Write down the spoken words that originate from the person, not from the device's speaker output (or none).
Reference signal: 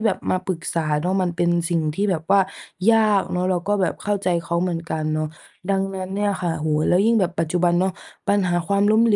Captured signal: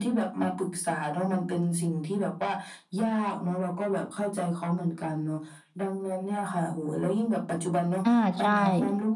อา ใช่